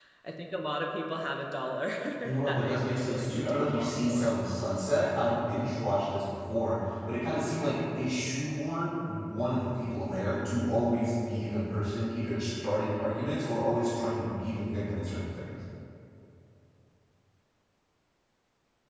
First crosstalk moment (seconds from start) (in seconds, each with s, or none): 2.5 s